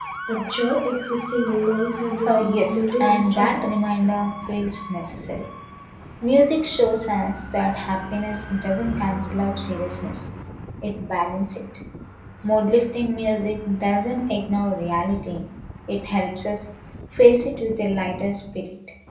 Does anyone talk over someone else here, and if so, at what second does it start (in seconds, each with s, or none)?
2.3 s